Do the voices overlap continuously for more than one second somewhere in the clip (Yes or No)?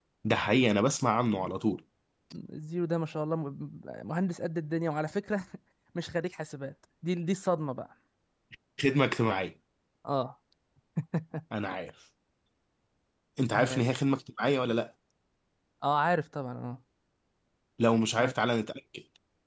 No